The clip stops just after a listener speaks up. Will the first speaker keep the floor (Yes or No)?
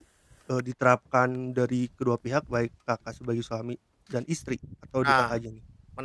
No